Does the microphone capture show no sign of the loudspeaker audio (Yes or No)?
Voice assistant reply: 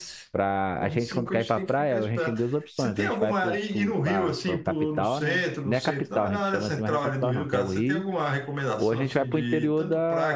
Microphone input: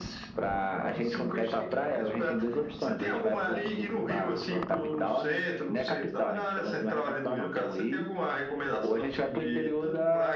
No